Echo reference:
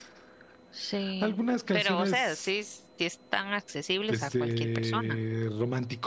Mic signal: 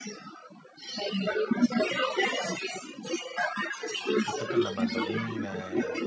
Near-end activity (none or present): present